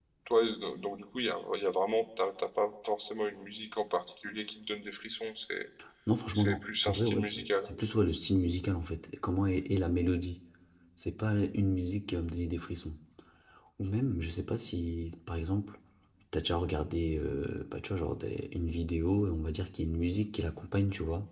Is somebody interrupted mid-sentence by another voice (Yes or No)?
Yes